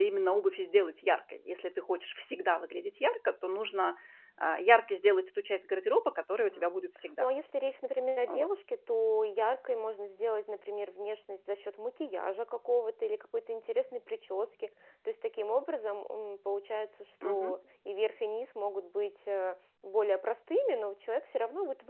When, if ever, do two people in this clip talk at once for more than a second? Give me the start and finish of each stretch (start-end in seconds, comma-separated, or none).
none